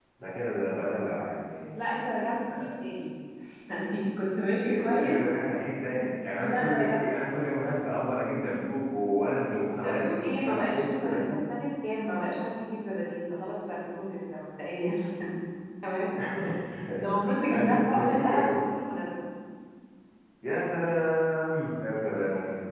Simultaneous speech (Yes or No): Yes